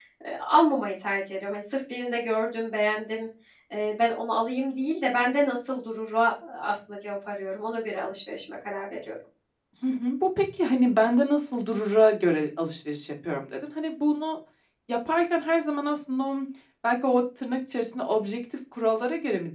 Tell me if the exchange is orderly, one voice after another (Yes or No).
Yes